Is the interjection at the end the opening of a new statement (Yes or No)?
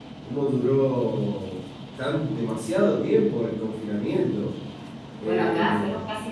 Yes